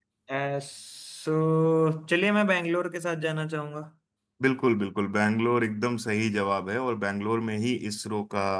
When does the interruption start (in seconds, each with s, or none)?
none